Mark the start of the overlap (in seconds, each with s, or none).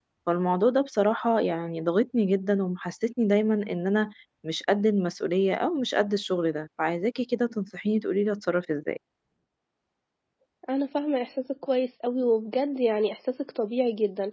none